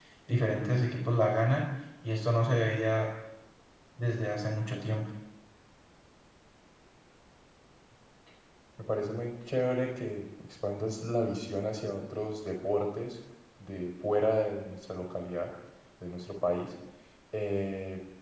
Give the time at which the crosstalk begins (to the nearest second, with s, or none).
none